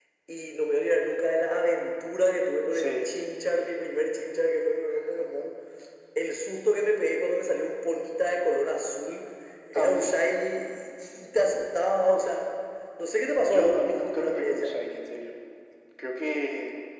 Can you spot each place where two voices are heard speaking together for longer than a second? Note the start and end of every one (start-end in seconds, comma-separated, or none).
13.4-14.8